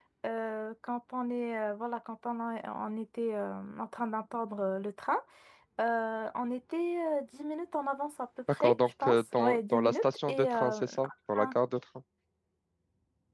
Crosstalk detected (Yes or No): Yes